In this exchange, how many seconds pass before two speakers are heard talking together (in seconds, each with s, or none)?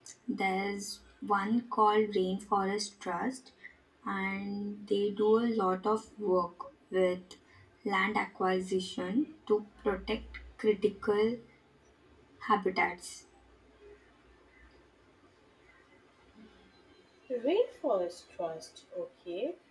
none